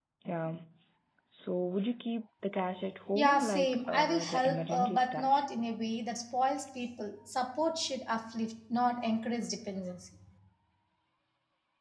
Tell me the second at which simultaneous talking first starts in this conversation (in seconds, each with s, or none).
3.1 s